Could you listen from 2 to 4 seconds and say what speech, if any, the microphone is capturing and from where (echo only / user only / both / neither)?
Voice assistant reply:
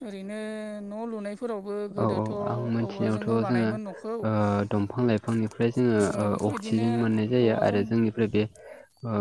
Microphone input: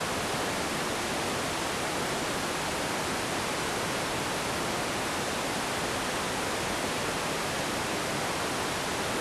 neither